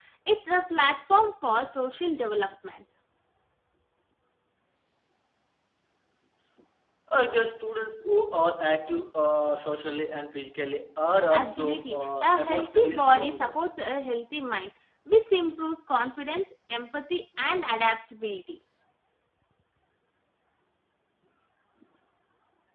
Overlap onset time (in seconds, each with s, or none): 11.3 s